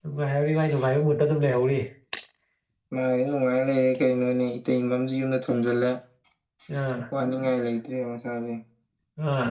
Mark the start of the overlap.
none

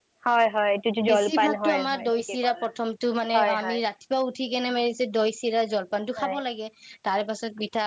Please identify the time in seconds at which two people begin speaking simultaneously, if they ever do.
1 s

